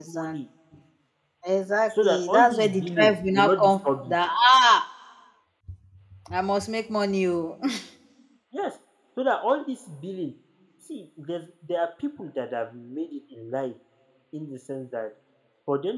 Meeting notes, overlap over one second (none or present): present